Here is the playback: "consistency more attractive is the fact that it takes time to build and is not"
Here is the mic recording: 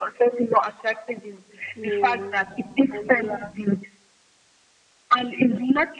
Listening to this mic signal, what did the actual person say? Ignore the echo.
Yeah. And it lasts.

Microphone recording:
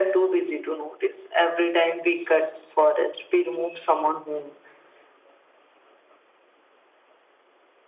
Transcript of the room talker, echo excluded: none

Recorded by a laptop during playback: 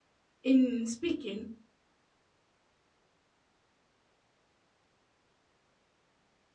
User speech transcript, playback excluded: in speaking

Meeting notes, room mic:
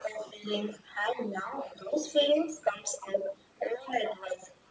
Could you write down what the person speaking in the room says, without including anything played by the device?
none

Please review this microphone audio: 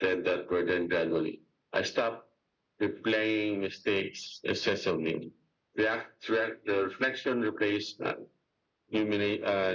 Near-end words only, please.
none

